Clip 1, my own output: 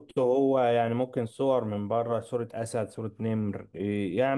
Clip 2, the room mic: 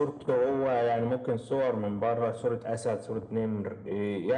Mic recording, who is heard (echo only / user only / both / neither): echo only